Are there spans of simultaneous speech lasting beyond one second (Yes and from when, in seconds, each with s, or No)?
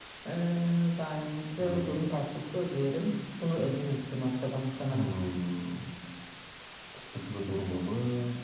No